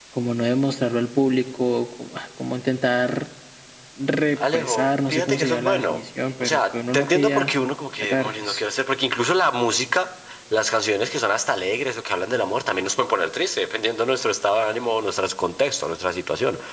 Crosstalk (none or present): present